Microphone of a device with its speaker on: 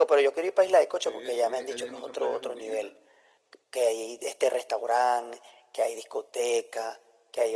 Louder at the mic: echo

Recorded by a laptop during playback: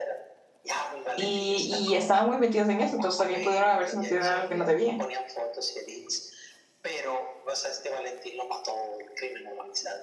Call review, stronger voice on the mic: user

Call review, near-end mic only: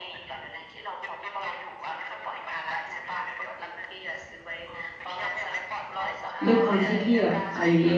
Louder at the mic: user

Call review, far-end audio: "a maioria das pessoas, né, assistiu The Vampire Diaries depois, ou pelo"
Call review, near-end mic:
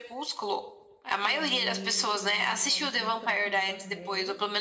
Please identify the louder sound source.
echo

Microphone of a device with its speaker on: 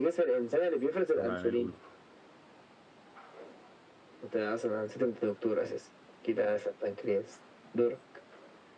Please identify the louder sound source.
echo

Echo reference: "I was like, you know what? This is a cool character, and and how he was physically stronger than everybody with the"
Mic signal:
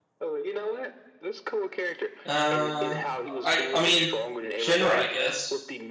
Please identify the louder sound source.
user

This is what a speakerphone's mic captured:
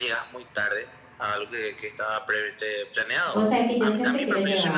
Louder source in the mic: user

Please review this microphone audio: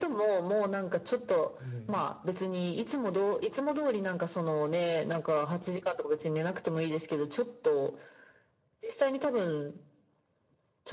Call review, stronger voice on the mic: echo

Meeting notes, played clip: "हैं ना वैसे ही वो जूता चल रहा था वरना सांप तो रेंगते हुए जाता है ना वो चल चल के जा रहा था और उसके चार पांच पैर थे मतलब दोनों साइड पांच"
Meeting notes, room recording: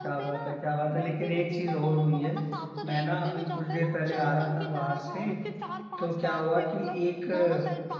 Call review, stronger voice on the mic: user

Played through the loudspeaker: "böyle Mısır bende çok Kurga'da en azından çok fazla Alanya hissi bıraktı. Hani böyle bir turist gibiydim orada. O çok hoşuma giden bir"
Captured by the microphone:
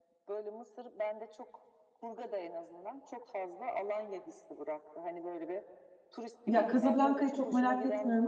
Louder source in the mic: user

